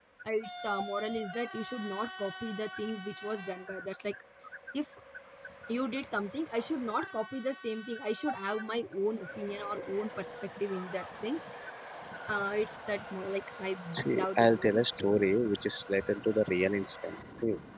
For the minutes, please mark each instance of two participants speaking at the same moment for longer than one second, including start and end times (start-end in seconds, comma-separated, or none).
13.9-15.2